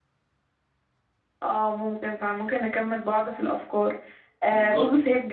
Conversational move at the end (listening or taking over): listening